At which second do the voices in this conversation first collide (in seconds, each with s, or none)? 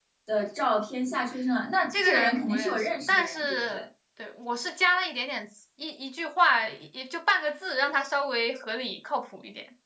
1.9 s